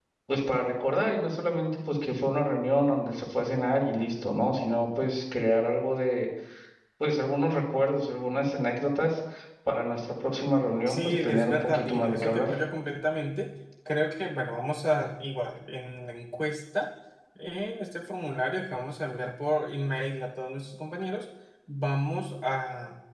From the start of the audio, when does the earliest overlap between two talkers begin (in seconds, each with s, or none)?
10.9 s